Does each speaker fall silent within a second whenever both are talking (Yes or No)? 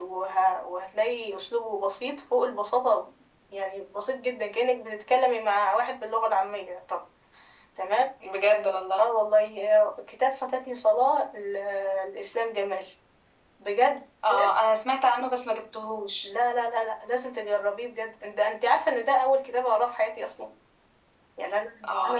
Yes